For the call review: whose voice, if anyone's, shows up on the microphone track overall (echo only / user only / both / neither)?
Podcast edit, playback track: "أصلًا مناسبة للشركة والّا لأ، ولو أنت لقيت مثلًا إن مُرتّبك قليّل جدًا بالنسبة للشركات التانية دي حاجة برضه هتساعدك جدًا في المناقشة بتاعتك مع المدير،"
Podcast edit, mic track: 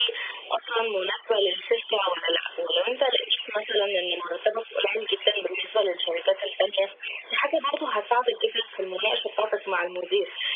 echo only